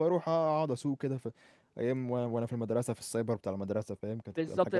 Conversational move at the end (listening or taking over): taking over